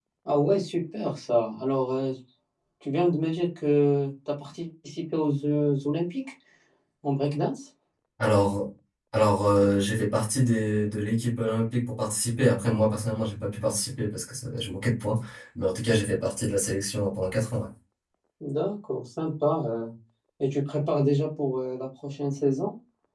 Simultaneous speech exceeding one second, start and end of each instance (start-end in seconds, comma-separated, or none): none